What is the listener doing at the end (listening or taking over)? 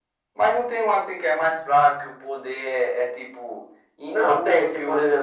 taking over